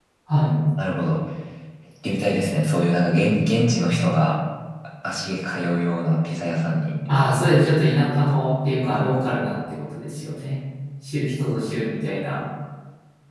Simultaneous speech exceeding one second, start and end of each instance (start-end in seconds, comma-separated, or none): none